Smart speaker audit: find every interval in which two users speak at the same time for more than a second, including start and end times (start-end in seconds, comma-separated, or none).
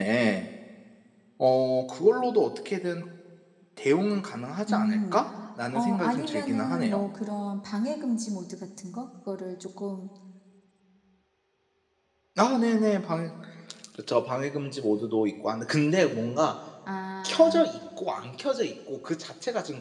5.7-7.0